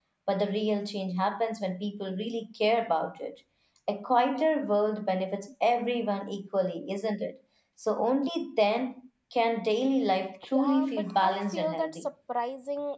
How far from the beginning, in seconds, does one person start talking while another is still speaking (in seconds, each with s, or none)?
10.5 s